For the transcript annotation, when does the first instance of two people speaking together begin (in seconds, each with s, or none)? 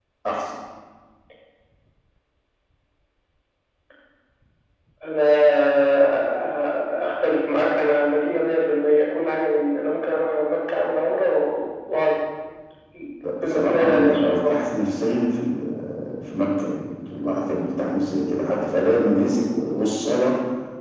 13.4 s